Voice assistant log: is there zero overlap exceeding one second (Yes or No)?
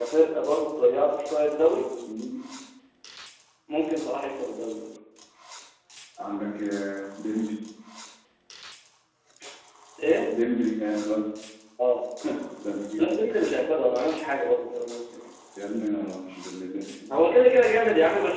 Yes